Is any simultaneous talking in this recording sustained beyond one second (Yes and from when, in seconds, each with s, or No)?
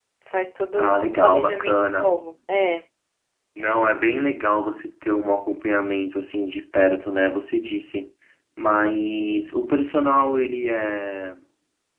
Yes, from 0.8 s